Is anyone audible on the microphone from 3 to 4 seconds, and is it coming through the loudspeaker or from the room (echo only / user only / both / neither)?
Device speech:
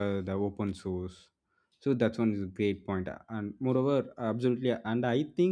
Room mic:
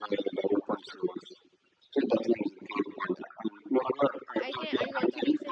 echo only